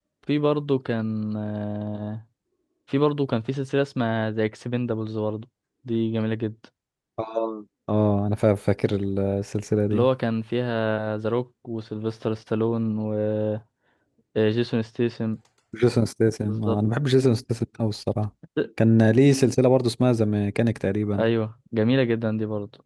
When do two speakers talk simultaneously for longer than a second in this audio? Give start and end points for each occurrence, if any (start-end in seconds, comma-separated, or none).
none